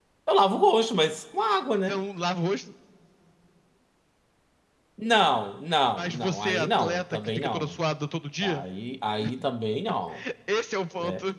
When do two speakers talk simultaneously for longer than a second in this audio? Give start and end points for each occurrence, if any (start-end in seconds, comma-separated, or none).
6.0-7.8